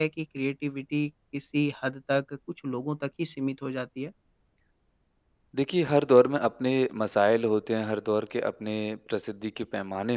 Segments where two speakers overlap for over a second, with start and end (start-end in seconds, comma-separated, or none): none